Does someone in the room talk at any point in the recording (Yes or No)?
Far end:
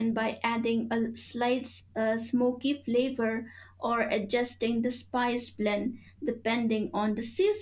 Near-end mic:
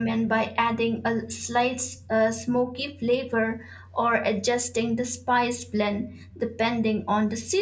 No